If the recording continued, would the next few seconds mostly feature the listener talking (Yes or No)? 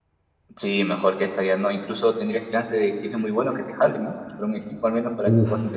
Yes